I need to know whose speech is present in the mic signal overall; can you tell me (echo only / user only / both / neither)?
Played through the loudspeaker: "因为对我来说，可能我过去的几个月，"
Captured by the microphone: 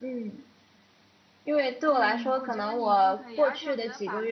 both